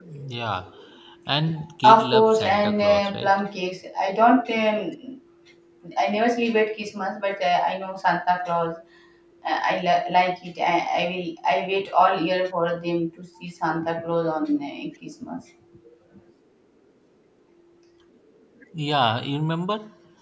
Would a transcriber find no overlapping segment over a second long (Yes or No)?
No